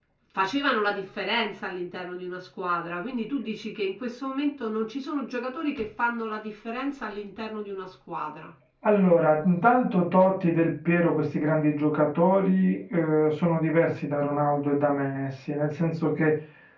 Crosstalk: none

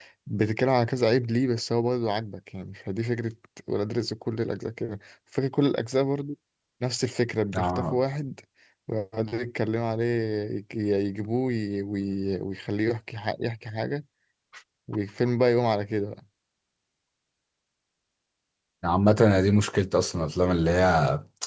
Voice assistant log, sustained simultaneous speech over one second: none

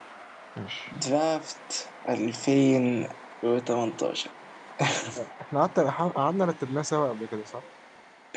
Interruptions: none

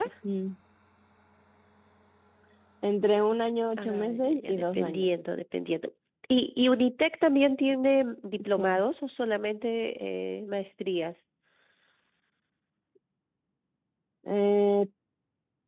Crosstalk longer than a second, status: present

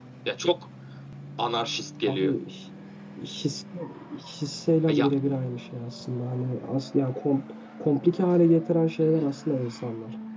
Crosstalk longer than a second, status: none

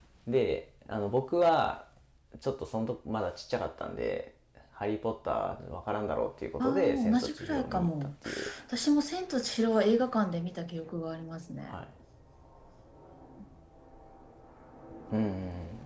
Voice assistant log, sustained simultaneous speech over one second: present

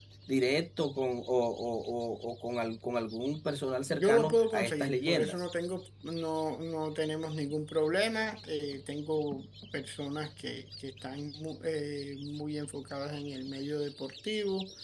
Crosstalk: present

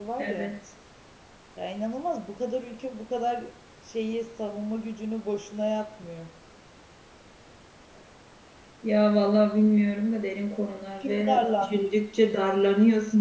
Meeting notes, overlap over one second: present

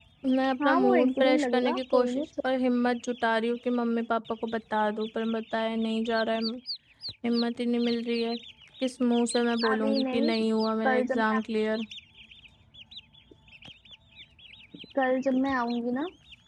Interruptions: present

